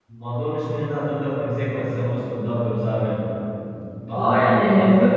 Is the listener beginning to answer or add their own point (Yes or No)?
Yes